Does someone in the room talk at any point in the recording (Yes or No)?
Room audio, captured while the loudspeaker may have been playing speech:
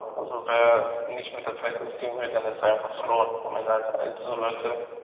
No